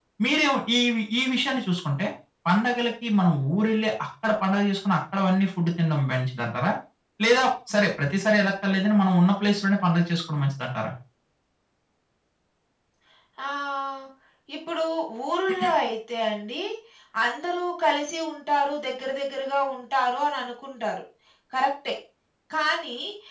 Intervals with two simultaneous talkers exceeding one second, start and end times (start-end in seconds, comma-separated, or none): none